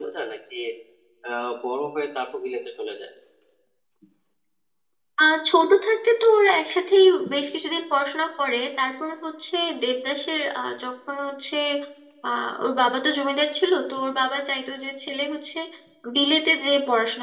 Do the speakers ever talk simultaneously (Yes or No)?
No